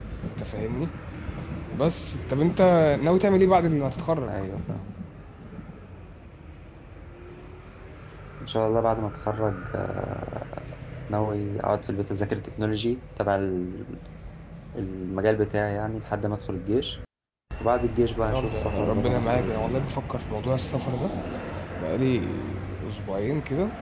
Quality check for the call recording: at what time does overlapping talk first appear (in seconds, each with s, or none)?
18.3 s